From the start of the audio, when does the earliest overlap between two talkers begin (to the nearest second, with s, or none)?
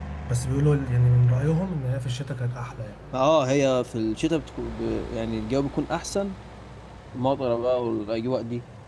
none